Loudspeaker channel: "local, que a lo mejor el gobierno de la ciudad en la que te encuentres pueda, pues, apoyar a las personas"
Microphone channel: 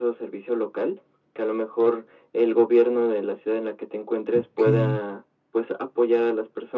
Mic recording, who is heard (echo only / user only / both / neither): both